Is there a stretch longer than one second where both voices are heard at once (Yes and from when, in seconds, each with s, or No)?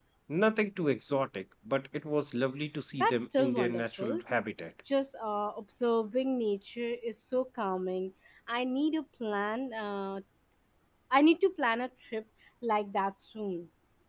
Yes, from 3.0 s